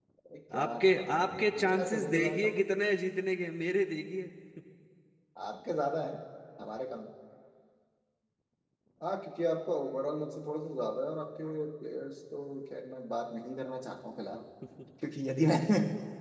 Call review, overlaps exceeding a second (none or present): present